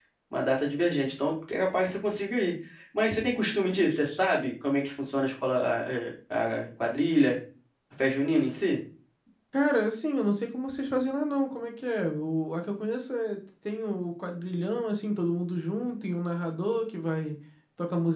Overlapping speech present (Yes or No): No